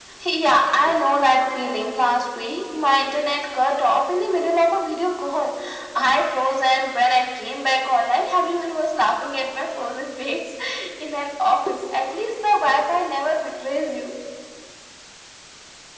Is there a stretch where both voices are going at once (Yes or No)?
No